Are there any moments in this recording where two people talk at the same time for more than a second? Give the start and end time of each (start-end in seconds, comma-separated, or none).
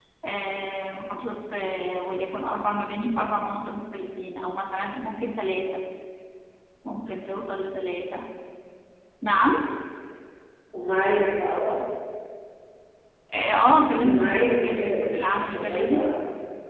14.0-16.0